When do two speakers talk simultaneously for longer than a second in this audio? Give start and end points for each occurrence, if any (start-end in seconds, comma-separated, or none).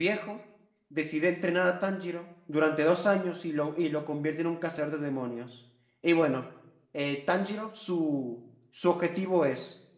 none